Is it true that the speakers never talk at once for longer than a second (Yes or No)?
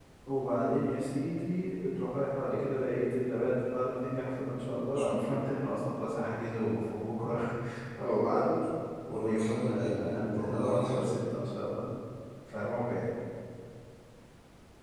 No